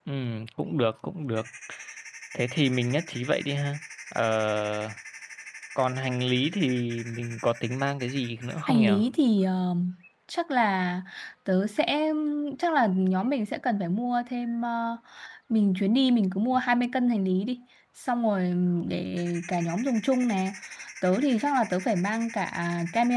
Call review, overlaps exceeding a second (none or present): none